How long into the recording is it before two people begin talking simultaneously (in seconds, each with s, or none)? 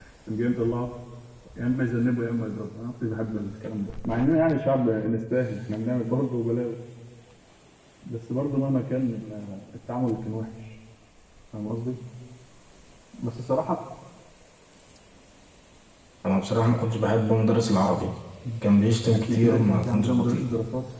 19.1 s